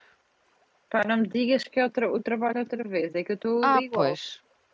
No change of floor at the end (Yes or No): No